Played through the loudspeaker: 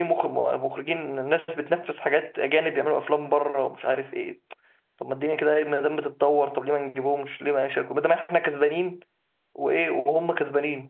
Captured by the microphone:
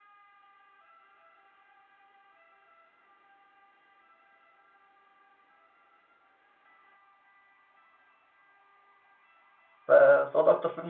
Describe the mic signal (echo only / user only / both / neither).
user only